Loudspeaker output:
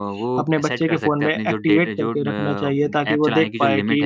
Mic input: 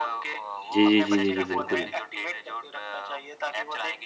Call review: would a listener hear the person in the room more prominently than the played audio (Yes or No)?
Yes